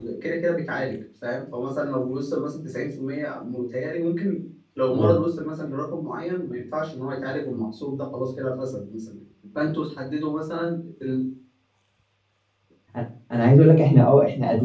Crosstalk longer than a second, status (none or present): none